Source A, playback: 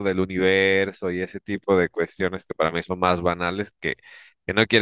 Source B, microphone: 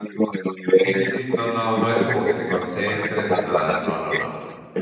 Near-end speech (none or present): present